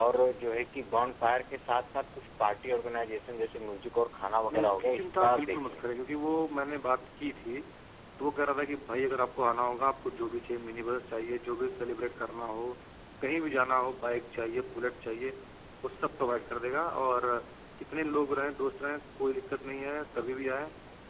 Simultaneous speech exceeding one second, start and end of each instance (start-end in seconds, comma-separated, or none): 4.5-5.8